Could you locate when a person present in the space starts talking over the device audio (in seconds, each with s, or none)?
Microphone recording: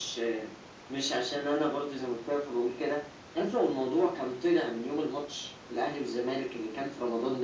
none